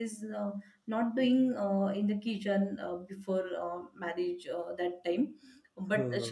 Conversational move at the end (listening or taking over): listening